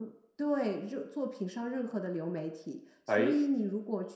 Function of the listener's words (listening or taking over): listening